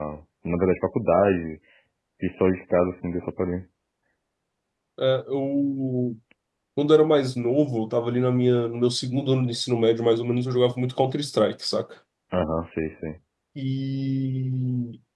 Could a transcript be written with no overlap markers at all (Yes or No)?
Yes